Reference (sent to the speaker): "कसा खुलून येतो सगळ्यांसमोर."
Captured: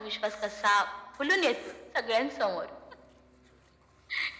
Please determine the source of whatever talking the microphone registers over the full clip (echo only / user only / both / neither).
echo only